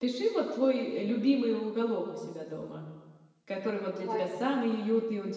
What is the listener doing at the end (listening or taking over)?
listening